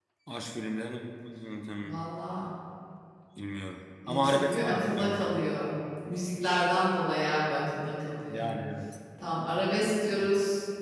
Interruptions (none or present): present